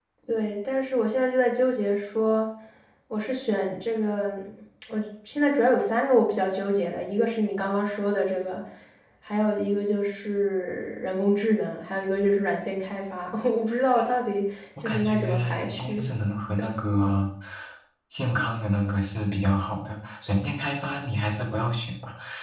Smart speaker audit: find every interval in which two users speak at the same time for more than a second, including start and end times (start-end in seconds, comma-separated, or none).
14.8-16.0